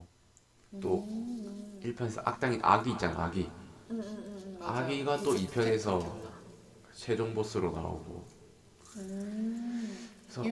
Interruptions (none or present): present